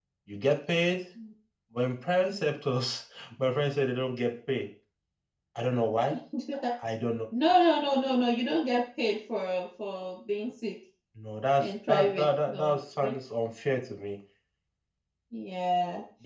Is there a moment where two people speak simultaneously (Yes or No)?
Yes